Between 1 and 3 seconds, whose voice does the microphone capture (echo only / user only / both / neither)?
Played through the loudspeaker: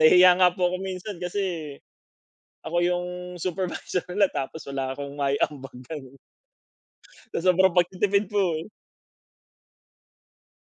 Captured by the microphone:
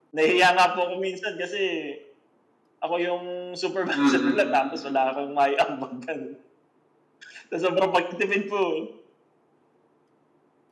echo only